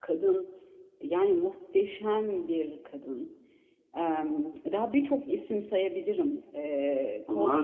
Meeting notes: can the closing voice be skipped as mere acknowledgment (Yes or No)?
No